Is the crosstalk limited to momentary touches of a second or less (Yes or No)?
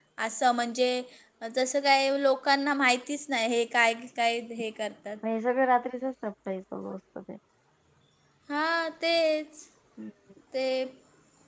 Yes